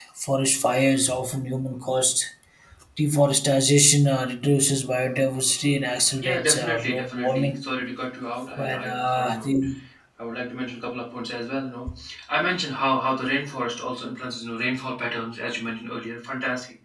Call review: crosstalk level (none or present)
present